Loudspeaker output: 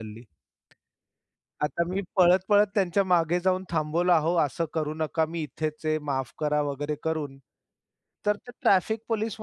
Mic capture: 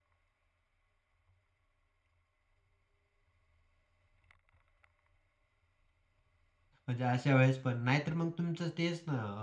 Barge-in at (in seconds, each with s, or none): 6.9 s